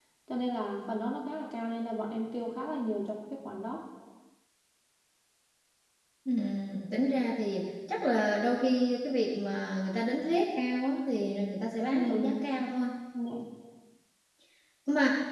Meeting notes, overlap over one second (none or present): none